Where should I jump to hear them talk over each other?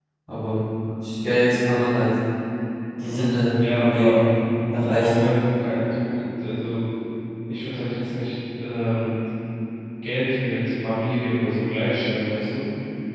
3.0 s

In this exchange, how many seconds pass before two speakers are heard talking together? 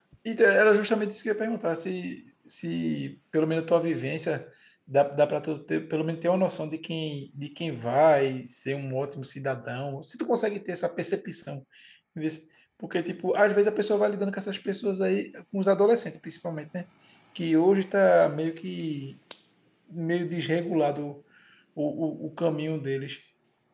none

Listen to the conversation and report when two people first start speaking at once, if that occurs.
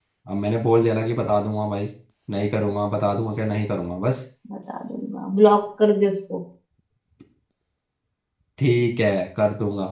none

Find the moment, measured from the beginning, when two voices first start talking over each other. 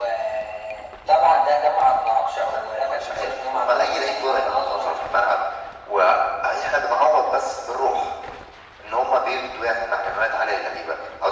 2.4 s

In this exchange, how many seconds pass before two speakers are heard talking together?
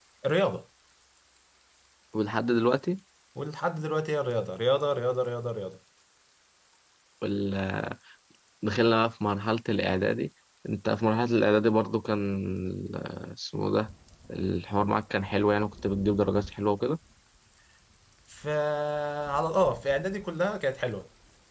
none

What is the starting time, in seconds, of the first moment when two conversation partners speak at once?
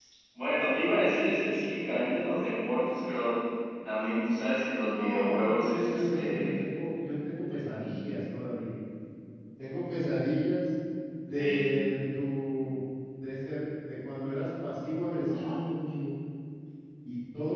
4.9 s

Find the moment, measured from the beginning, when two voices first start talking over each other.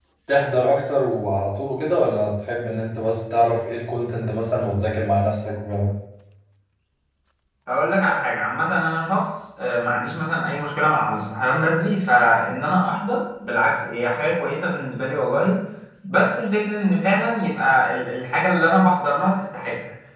none

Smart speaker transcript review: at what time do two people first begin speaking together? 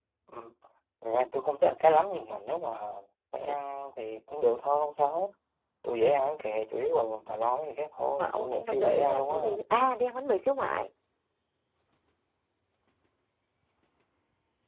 8.2 s

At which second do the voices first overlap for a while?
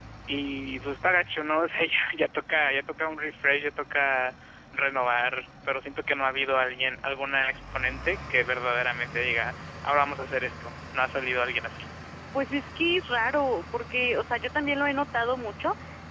none

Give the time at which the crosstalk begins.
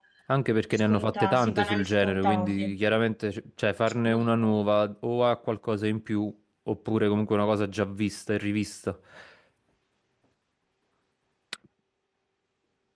0.9 s

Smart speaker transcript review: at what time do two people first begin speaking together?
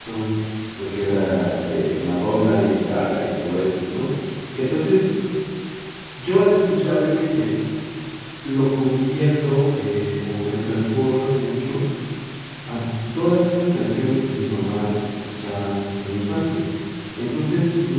none

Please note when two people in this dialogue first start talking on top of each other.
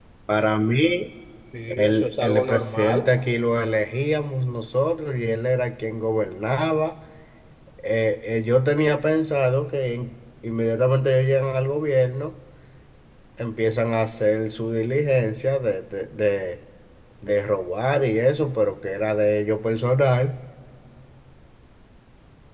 1.7 s

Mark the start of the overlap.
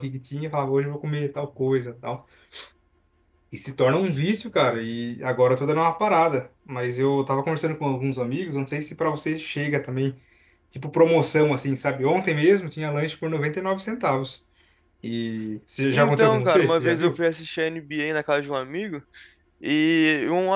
15.9 s

